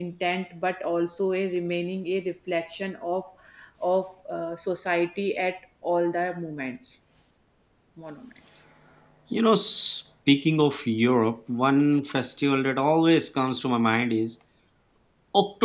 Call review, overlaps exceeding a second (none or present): none